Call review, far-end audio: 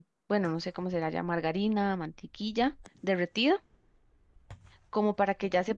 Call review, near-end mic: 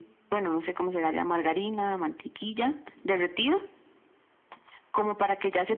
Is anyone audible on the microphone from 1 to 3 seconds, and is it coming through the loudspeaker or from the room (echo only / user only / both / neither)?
echo only